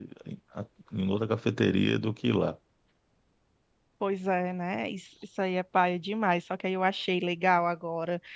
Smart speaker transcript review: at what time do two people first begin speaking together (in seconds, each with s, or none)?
none